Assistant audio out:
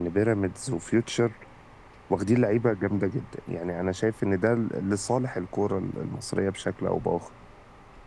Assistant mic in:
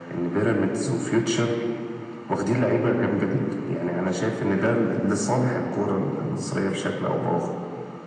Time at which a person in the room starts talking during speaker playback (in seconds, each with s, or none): none